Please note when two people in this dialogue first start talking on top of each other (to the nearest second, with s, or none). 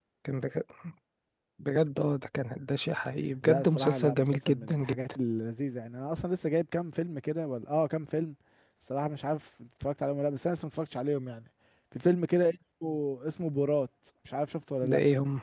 3 s